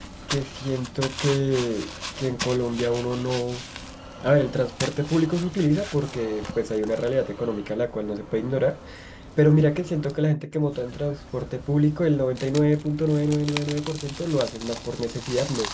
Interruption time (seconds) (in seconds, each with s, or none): none